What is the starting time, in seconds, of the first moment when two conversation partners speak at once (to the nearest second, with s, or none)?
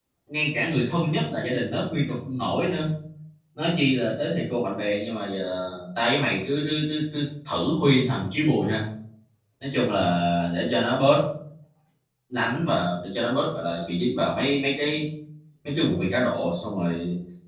none